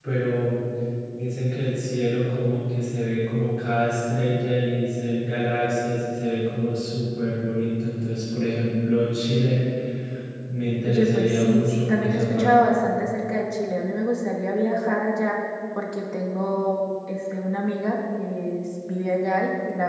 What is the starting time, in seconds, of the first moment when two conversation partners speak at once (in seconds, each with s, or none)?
10.8 s